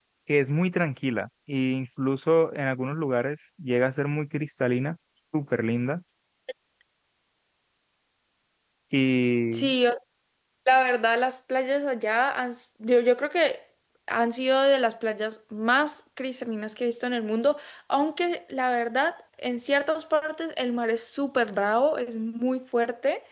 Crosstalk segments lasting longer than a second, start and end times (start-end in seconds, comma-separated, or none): none